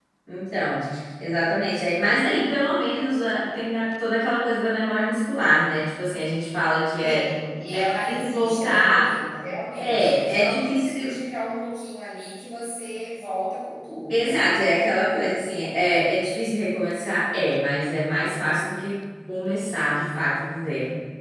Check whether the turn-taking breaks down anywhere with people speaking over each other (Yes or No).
Yes